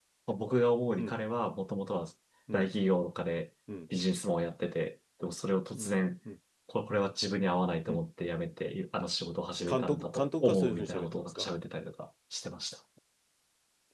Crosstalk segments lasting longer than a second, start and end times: 9.7-11.5

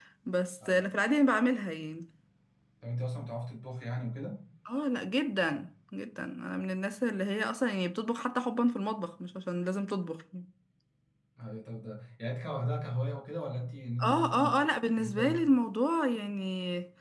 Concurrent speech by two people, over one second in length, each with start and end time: none

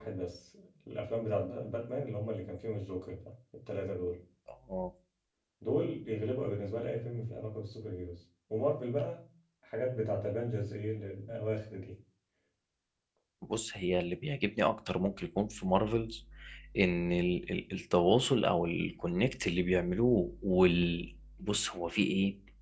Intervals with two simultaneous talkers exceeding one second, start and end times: none

